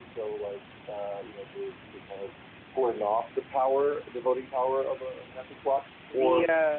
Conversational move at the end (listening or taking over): taking over